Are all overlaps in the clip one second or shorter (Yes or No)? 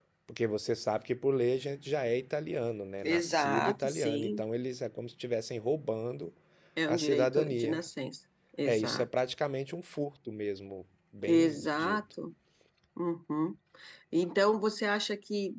No